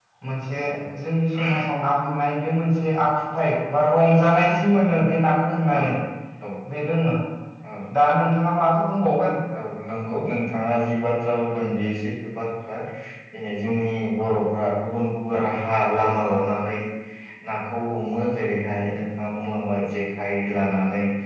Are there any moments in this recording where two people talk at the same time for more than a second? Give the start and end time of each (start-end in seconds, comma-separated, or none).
none